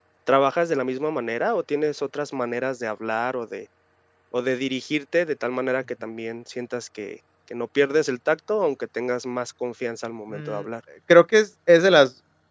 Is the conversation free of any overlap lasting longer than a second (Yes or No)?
Yes